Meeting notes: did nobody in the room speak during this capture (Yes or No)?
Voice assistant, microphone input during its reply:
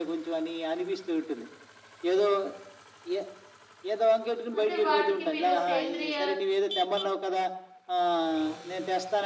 No